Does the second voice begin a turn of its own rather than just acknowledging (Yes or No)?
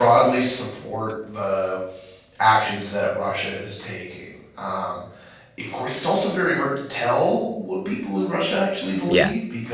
No